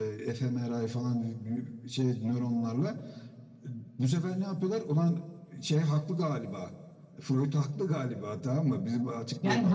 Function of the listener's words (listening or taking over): taking over